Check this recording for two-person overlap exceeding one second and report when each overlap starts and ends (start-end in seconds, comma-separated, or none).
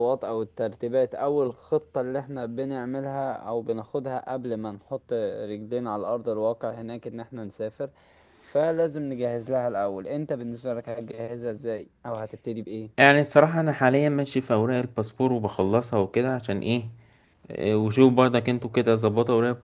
none